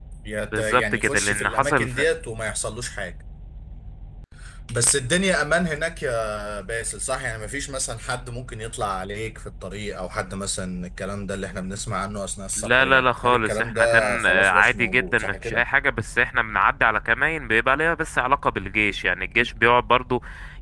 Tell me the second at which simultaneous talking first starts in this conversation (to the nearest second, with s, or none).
1 s